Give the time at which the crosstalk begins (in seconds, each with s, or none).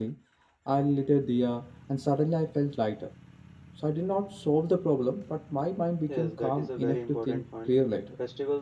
6.1 s